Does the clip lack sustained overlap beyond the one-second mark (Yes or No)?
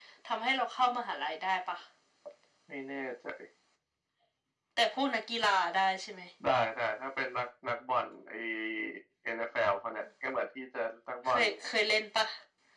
Yes